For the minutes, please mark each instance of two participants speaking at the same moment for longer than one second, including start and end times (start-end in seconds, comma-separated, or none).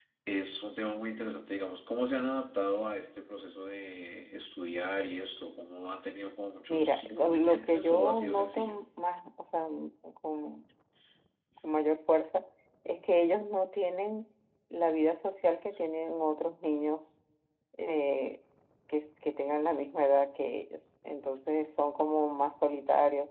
6.7-8.8